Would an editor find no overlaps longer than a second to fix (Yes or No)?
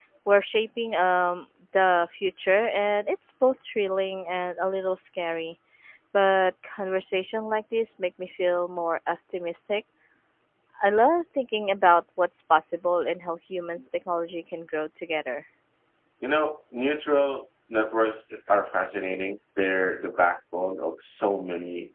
Yes